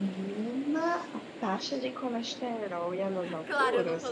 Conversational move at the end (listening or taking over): taking over